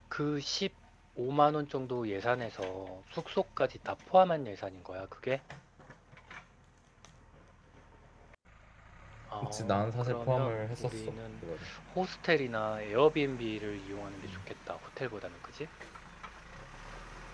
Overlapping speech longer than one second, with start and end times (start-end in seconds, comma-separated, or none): 9.4-11.2